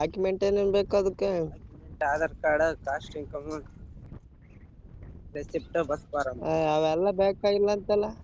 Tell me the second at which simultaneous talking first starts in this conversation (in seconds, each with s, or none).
none